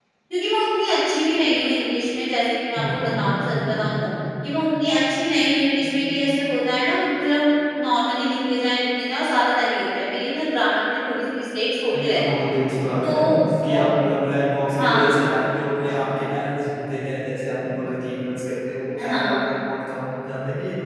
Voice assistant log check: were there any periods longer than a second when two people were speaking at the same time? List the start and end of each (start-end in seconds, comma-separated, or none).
none